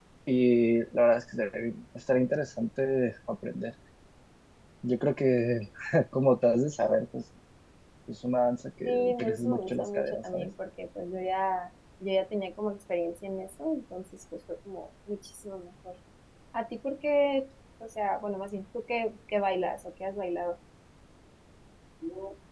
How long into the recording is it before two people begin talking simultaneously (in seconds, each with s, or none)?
8.8 s